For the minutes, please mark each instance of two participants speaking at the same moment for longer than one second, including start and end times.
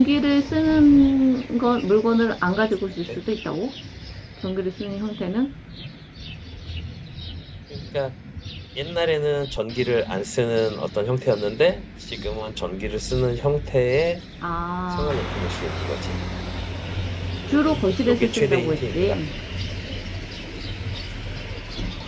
17.5-19.2

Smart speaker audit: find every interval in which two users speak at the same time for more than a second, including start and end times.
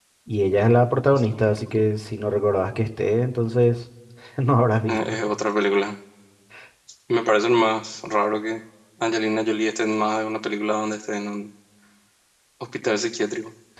none

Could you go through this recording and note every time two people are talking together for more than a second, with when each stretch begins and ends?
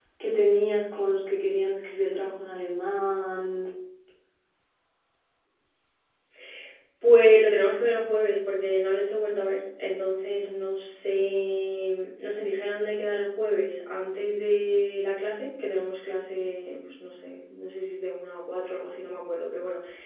none

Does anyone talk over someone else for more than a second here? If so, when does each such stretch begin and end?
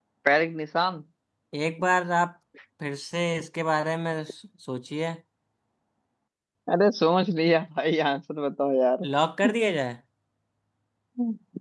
none

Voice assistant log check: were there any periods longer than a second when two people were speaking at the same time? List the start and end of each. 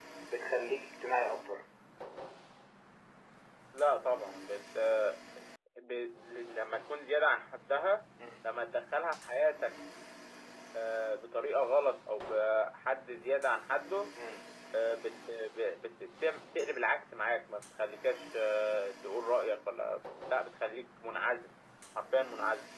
none

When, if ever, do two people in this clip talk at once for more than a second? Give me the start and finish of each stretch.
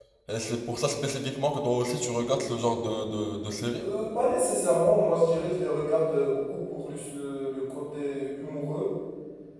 none

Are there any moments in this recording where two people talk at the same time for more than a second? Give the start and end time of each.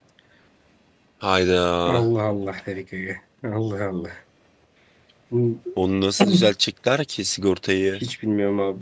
none

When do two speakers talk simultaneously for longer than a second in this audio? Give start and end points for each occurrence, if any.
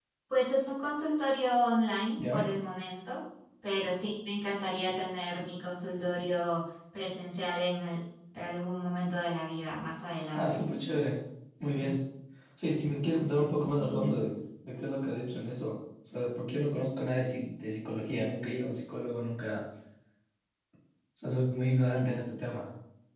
none

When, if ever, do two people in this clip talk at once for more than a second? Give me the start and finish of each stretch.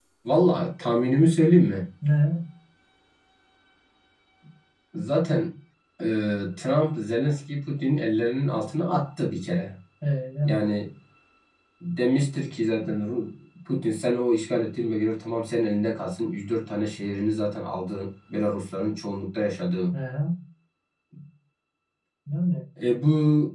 none

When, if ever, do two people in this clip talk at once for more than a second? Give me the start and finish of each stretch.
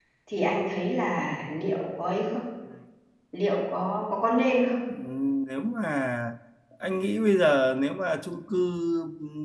none

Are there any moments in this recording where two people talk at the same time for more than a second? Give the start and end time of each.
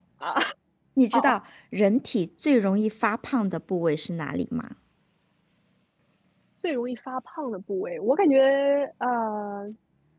none

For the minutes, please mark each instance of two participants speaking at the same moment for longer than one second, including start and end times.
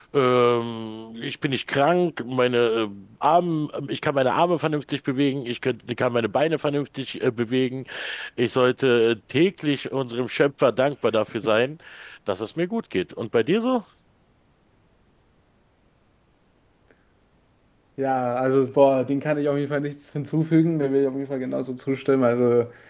none

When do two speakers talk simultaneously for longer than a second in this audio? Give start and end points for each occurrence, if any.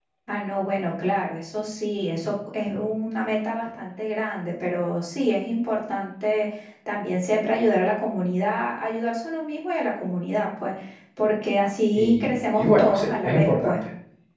11.9-13.8

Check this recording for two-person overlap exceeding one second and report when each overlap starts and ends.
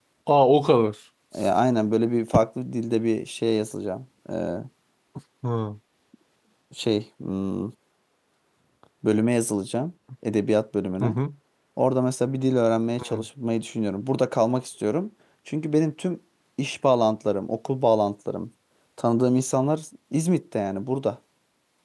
none

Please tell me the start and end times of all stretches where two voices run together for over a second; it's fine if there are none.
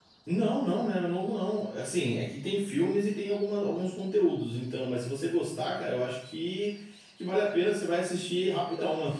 none

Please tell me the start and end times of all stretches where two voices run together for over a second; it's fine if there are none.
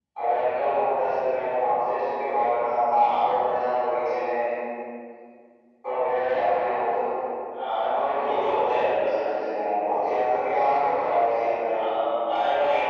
7.8-9.2

